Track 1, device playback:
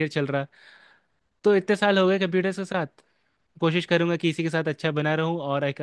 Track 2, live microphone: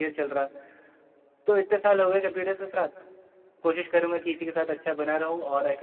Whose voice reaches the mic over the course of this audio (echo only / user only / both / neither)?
echo only